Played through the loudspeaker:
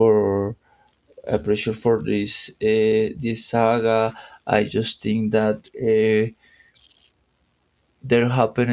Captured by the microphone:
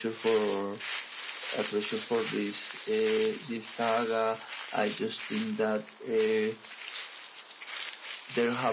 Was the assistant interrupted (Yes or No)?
No